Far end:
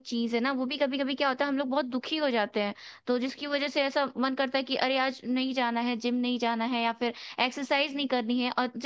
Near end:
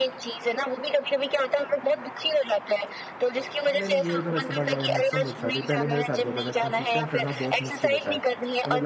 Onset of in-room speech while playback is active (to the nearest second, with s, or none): 4 s